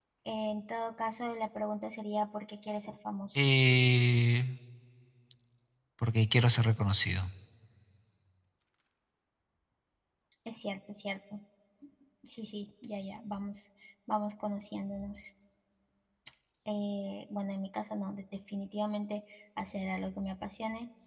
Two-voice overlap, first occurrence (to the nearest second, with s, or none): none